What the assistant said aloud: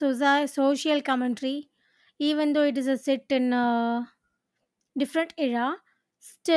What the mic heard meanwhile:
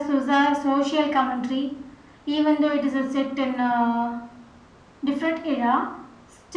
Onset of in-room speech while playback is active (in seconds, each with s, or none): none